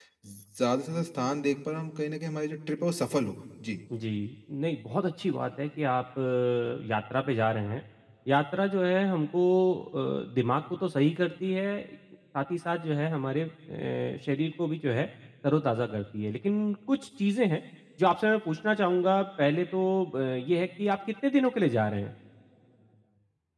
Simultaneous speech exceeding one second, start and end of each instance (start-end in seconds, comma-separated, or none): none